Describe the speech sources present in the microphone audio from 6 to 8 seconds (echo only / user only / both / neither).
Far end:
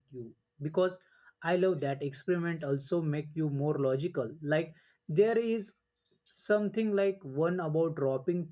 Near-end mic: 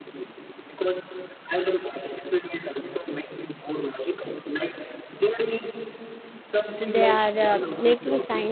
both